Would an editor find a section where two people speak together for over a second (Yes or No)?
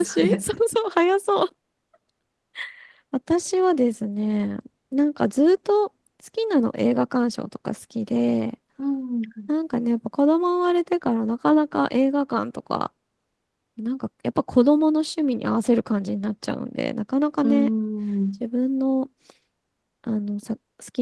No